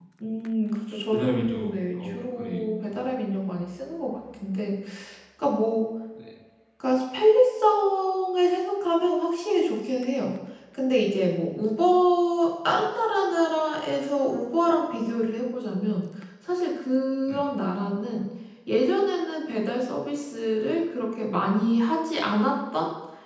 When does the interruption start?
1 s

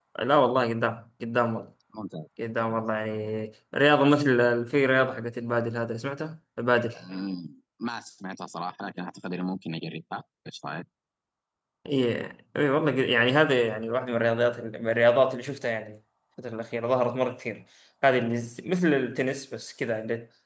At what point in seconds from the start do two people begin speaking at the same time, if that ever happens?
none

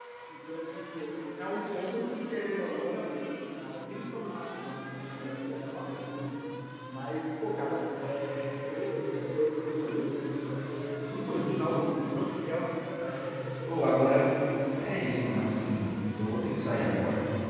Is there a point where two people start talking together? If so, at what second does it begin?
none

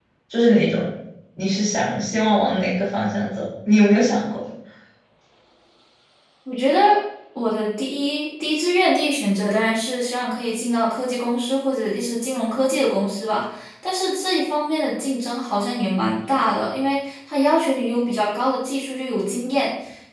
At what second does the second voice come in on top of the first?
none

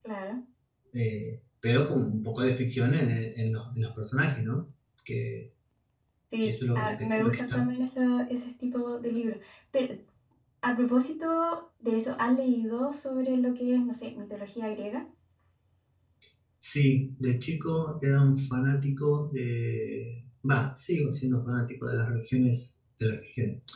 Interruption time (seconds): 6 s

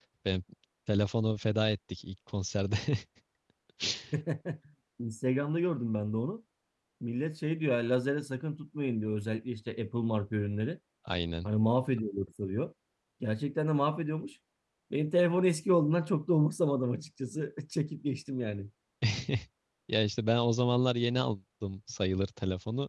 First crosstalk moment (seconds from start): none

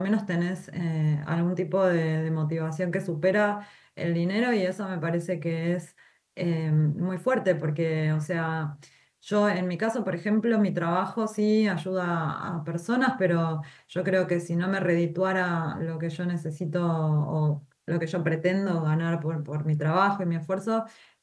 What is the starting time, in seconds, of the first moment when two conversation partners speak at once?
none

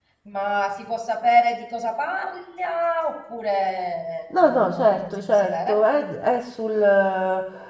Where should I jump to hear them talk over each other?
4 s

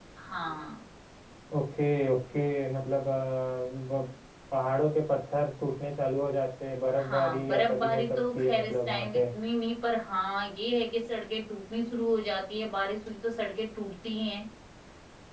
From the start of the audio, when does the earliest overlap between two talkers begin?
7 s

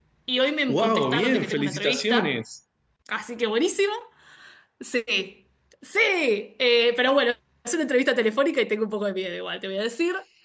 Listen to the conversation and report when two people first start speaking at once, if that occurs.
1 s

